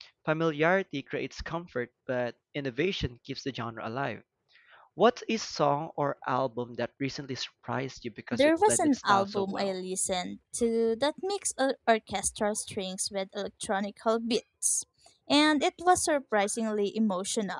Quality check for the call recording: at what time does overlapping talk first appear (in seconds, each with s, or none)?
8.3 s